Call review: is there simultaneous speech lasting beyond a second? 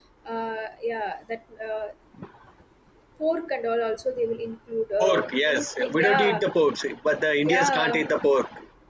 Yes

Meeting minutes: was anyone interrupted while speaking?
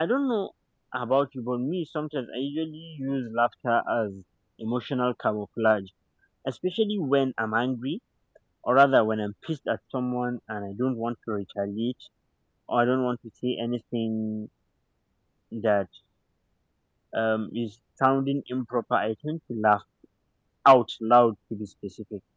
No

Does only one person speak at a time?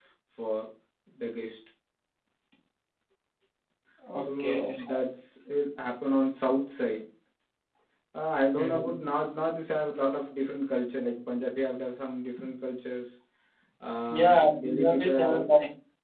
No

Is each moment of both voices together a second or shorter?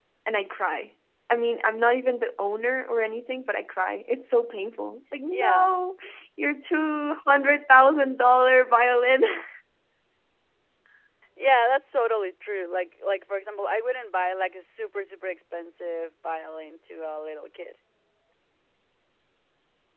Yes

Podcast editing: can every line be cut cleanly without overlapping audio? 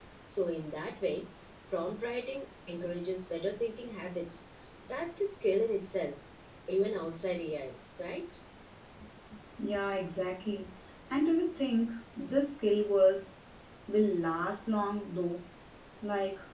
Yes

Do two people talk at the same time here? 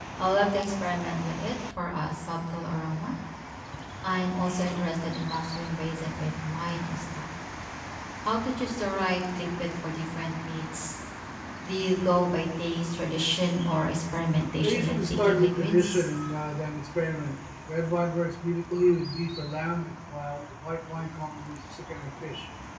Yes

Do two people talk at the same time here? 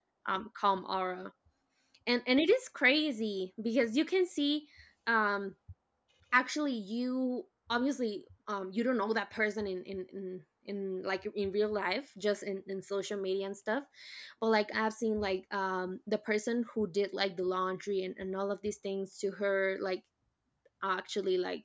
No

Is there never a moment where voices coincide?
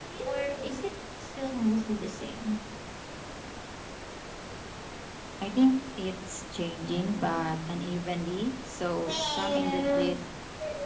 No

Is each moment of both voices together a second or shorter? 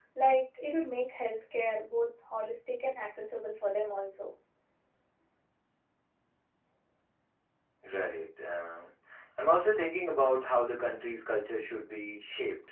Yes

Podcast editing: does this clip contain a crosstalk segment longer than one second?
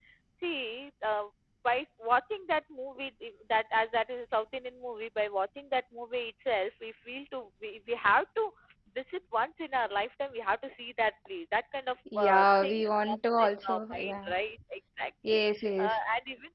Yes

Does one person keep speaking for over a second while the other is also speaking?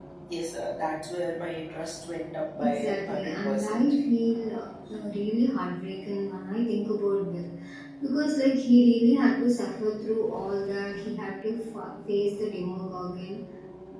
Yes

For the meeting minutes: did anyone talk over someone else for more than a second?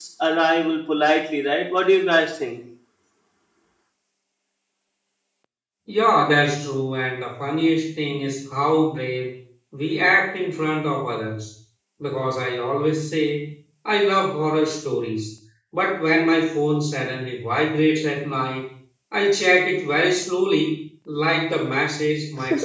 No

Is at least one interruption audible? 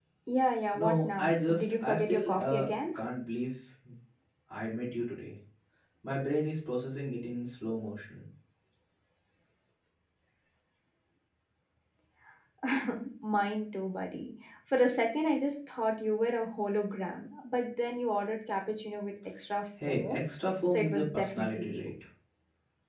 Yes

